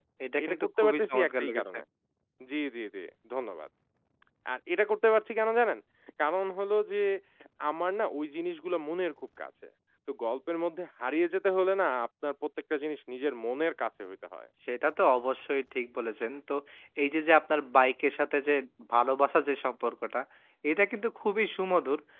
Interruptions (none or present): present